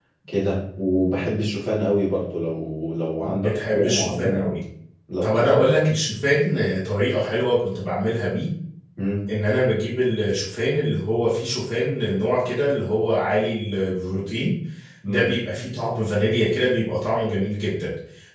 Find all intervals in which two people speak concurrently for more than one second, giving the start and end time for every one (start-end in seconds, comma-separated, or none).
3.2-4.5